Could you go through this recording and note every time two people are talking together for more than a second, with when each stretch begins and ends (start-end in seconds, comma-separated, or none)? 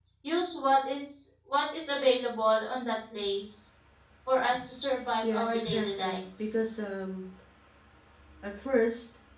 5.2-6.5